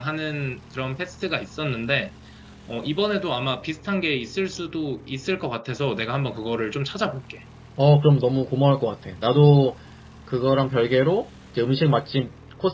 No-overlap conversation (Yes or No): Yes